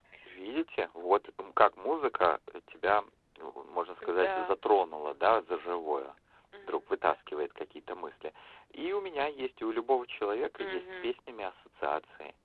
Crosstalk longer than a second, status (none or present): none